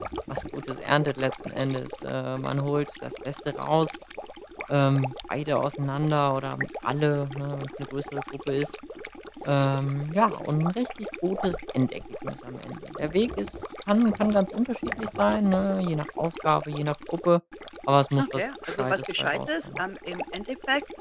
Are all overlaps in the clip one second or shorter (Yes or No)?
No